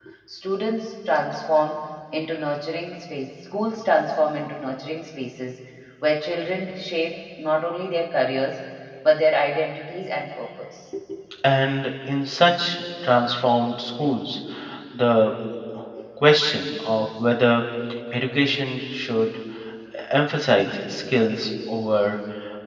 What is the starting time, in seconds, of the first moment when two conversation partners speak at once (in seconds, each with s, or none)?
none